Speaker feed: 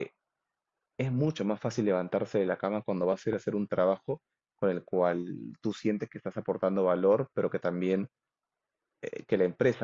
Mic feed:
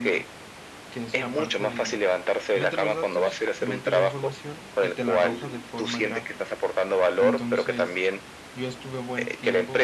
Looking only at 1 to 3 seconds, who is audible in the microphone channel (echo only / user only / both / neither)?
both